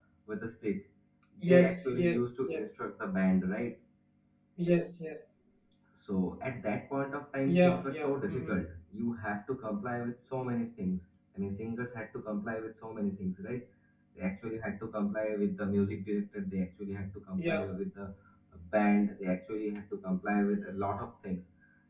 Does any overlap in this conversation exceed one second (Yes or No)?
Yes